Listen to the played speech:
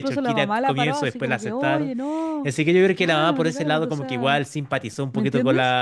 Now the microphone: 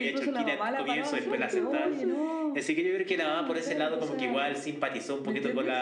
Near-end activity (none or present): present